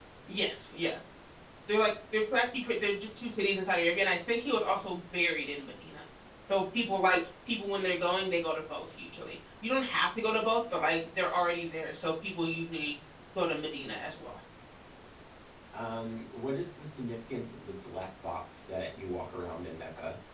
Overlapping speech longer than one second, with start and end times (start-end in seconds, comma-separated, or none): none